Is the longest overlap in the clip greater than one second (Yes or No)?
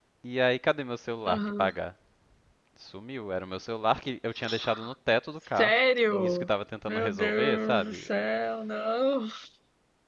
Yes